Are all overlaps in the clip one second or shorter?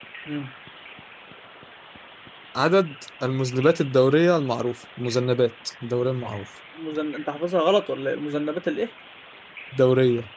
Yes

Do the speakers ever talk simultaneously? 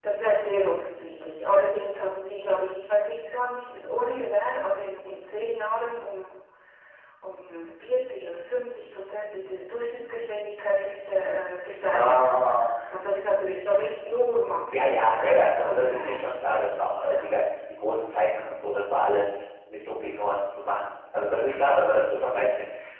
Yes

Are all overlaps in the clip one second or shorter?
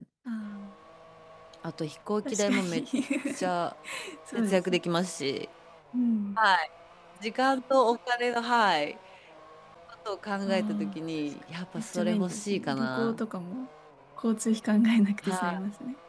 No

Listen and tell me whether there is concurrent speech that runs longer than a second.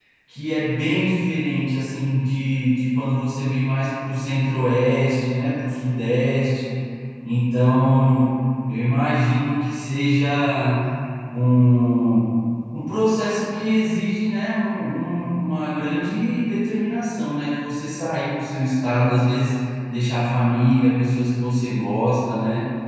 No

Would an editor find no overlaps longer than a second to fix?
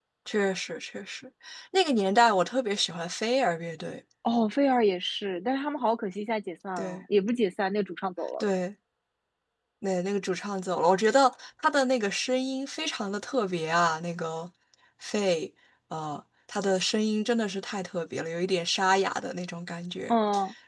Yes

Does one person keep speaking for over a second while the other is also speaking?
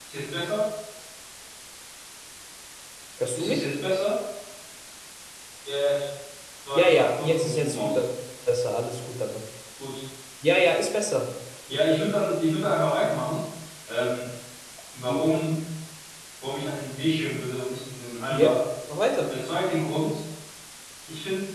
Yes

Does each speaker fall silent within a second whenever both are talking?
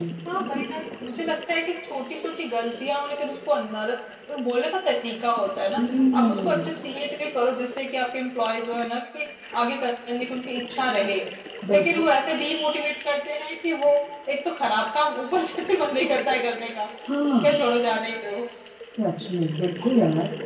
Yes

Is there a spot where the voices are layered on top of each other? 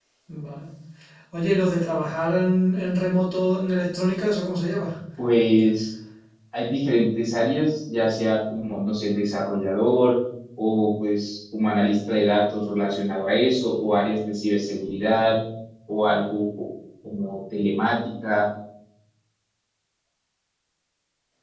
No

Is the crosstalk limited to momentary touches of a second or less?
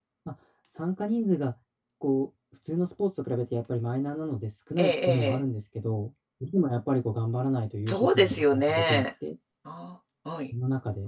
No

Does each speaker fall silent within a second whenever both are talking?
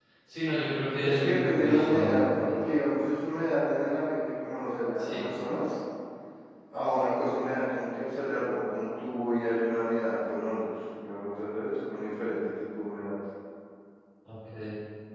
No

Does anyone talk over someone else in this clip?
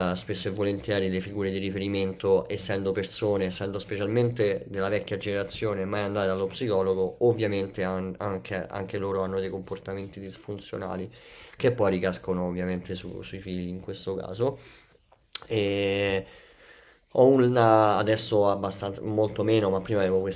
No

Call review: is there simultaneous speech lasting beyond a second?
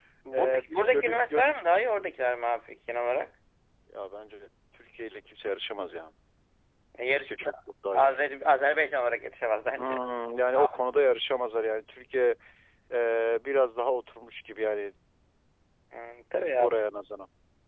Yes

